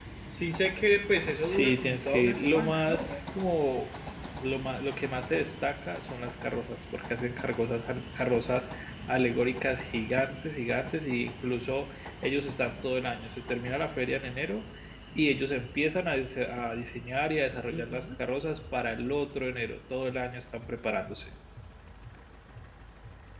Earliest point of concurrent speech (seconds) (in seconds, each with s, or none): 1.4 s